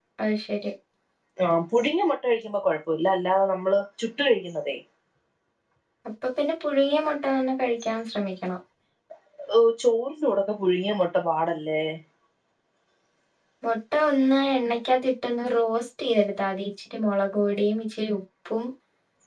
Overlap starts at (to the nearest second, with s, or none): none